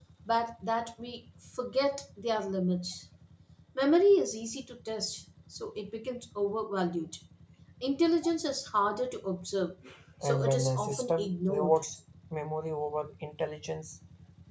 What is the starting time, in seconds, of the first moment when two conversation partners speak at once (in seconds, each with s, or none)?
10.2 s